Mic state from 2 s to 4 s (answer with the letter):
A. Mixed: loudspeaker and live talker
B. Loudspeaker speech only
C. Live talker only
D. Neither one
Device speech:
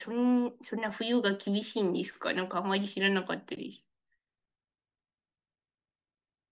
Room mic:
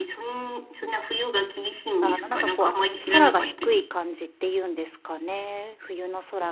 A